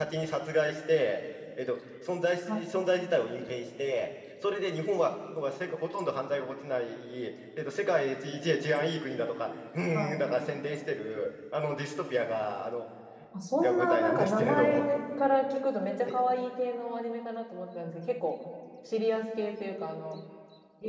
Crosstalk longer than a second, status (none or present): present